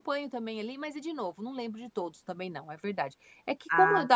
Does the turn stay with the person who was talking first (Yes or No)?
Yes